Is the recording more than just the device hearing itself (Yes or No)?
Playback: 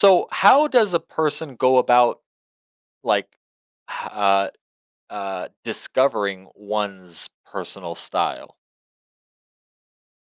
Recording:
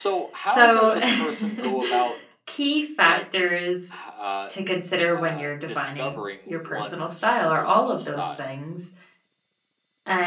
Yes